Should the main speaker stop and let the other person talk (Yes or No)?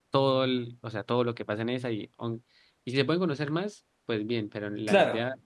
No